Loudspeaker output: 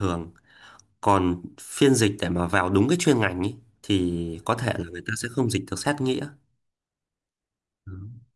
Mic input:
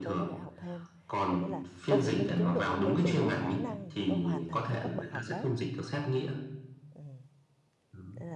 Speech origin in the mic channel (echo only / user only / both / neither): both